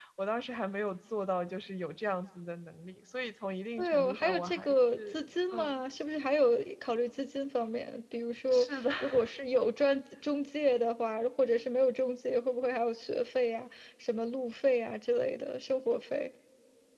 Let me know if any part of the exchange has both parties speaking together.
Yes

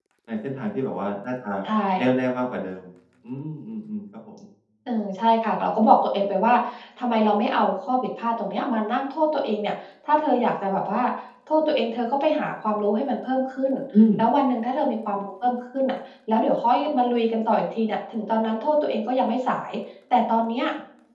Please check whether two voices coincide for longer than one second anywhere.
No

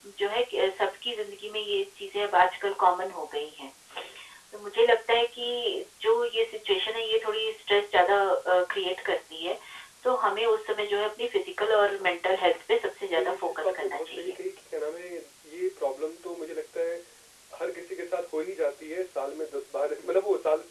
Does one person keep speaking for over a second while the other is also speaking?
Yes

